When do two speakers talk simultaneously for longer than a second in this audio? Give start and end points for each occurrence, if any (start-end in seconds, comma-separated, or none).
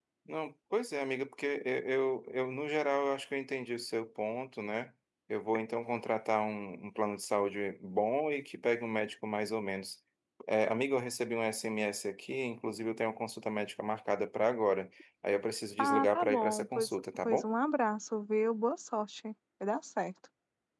15.8-17.5